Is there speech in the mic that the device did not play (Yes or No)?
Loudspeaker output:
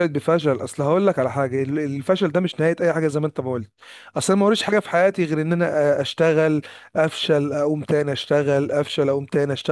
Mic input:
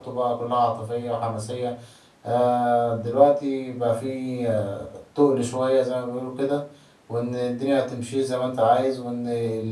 Yes